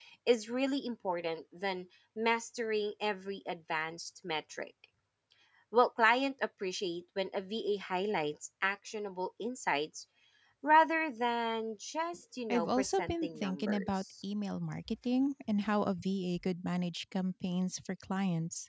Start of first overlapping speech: 12 s

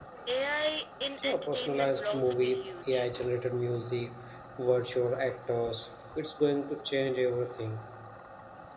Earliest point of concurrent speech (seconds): 1 s

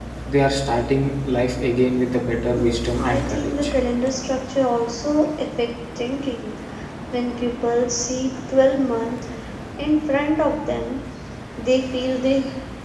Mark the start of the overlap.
3 s

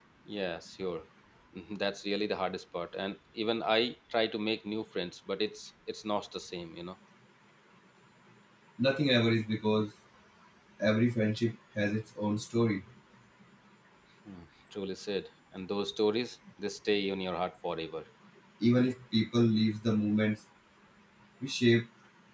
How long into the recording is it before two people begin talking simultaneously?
none

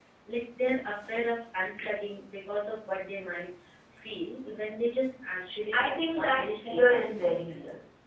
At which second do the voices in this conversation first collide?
6 s

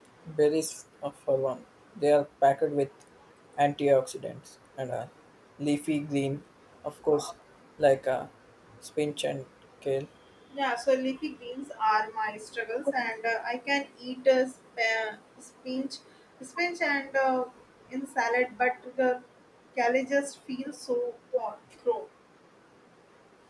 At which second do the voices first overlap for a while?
none

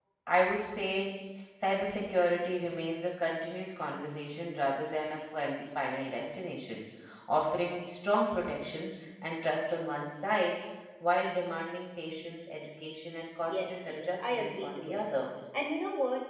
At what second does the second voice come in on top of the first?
13 s

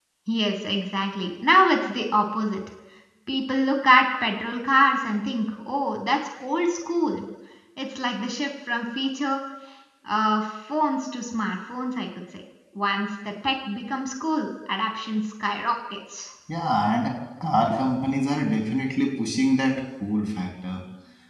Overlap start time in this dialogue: none

